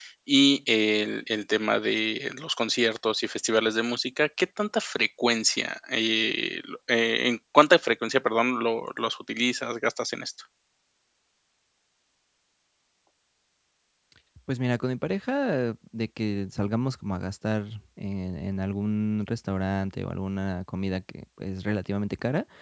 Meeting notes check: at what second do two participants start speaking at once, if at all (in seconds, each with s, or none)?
none